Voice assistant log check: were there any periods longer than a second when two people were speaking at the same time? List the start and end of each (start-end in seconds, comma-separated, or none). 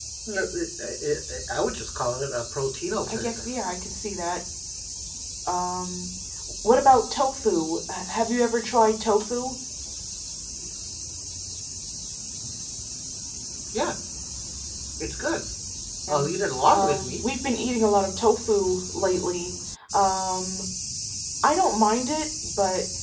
none